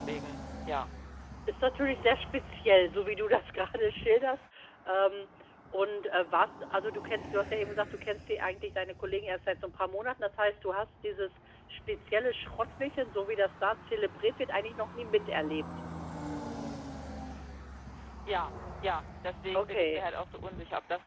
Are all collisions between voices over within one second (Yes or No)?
Yes